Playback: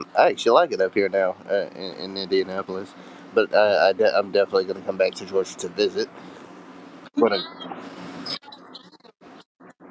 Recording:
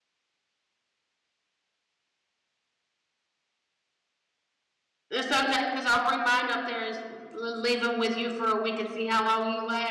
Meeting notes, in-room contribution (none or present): present